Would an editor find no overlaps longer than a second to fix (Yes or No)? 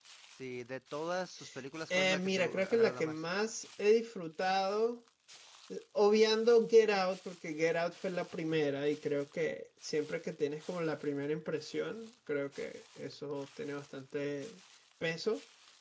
No